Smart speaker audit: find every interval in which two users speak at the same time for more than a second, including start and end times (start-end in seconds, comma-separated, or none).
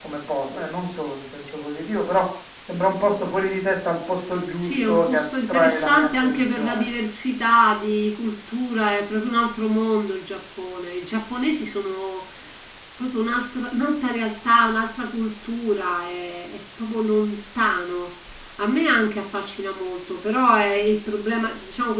4.6-6.9